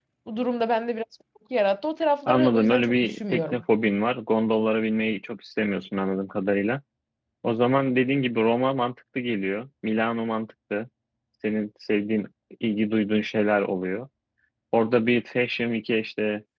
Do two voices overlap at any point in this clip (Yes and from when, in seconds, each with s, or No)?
Yes, from 2.3 s